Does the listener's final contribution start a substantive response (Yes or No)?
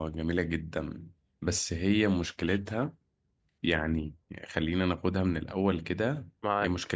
No